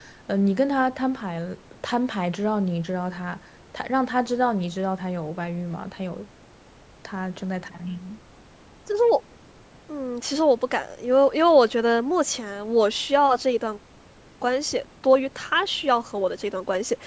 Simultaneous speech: No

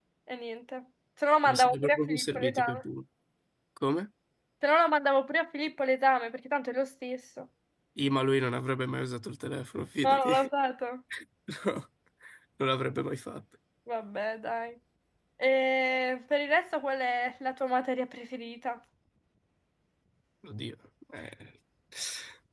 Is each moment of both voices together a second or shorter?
No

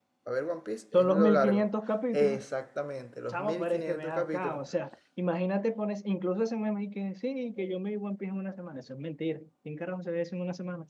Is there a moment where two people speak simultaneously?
Yes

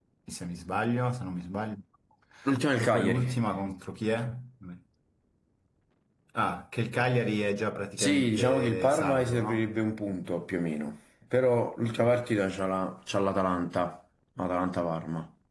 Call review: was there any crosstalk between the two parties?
Yes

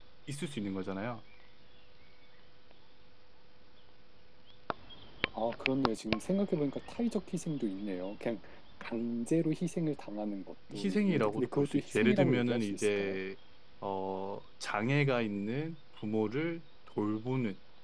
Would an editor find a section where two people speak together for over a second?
Yes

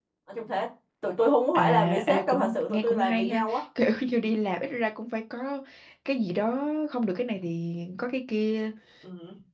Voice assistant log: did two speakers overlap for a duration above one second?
Yes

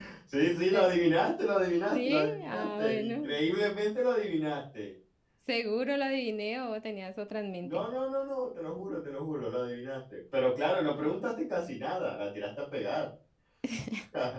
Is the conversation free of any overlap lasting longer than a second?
No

